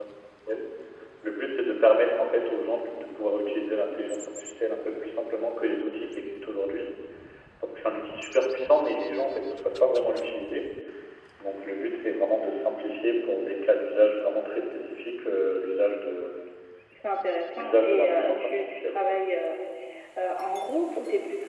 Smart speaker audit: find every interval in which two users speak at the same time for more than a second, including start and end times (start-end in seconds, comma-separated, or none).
17.6-19.0